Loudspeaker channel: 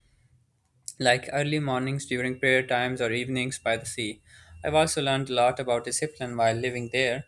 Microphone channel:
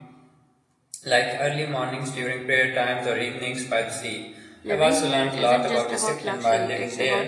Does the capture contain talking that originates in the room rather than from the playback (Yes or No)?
Yes